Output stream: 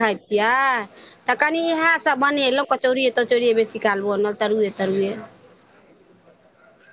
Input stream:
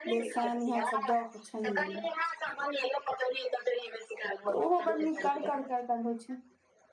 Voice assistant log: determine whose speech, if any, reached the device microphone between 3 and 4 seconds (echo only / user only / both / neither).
echo only